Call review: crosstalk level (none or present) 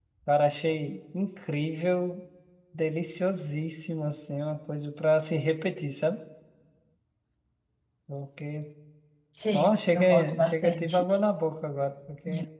present